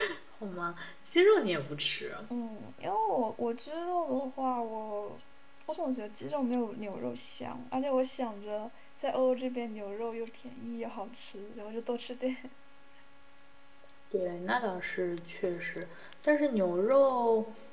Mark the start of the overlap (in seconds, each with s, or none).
none